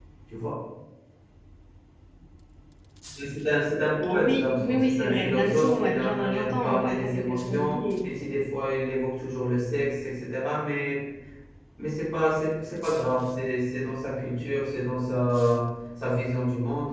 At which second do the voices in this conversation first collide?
4.0 s

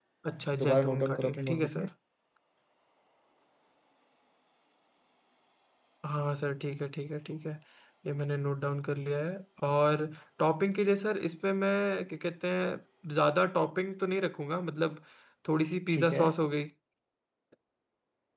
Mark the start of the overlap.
0.6 s

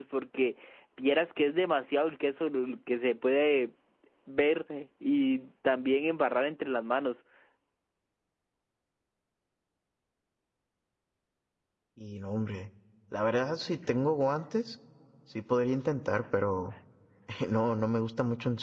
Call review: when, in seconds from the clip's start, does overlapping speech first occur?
none

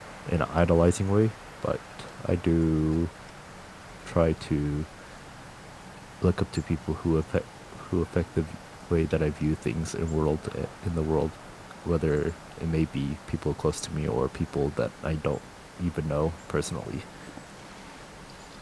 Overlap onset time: none

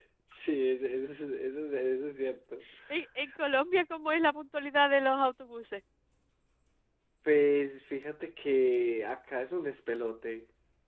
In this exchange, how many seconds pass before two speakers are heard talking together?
none

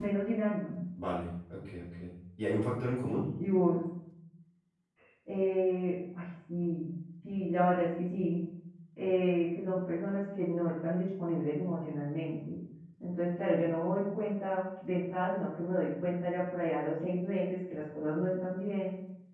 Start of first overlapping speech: none

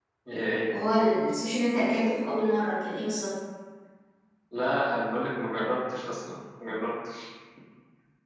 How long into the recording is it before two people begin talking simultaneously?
none

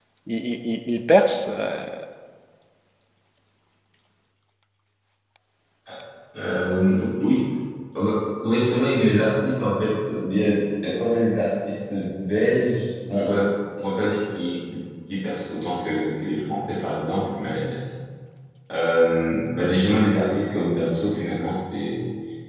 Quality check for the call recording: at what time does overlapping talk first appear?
none

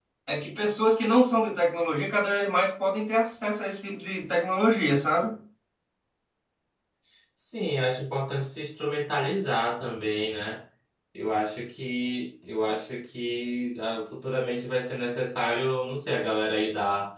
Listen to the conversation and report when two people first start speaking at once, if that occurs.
none

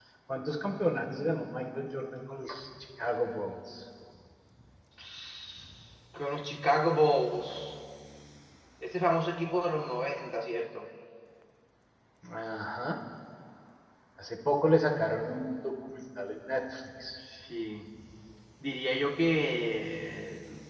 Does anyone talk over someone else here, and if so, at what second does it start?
none

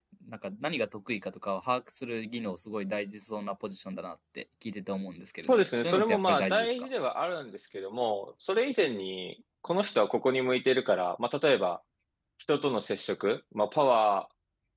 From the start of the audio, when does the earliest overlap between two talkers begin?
5.4 s

